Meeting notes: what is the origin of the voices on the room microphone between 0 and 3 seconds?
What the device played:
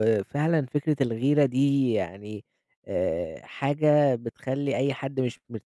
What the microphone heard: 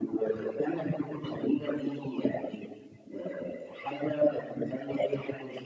echo only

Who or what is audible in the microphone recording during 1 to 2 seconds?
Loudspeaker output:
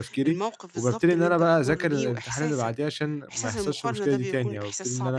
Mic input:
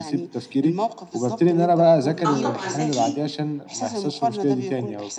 echo only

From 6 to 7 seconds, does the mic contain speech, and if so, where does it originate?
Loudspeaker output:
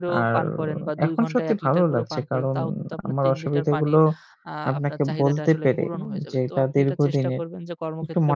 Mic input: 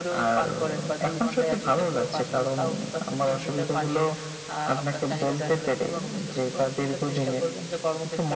echo only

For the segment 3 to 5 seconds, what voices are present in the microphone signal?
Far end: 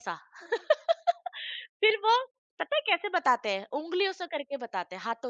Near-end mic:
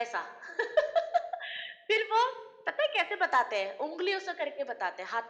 echo only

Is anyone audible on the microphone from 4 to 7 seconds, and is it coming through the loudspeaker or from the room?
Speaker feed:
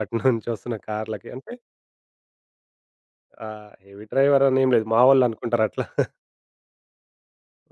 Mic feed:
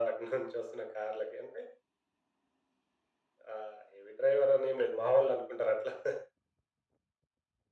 echo only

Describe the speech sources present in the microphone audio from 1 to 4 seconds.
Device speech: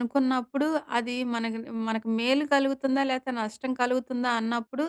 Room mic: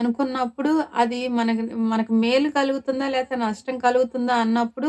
echo only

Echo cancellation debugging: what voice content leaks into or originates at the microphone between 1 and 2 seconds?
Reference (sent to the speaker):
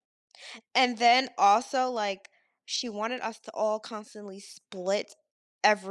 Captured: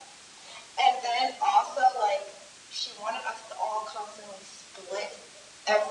echo only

